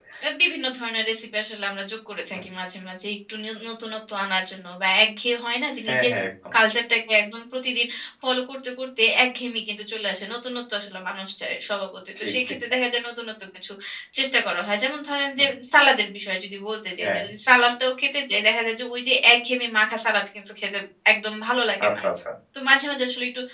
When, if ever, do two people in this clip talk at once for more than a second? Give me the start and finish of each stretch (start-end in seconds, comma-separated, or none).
none